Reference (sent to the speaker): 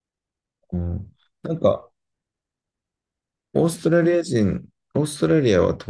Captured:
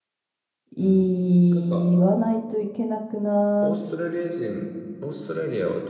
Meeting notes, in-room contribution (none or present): present